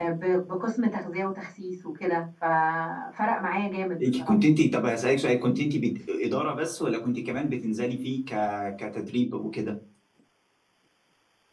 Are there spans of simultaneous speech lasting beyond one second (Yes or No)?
No